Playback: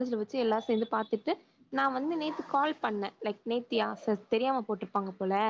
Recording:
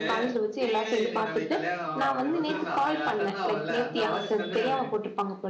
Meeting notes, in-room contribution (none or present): present